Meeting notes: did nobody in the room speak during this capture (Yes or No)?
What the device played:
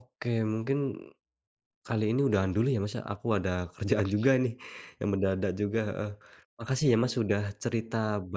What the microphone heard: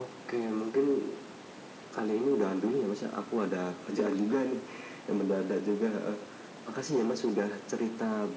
Yes